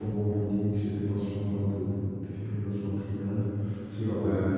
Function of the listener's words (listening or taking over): taking over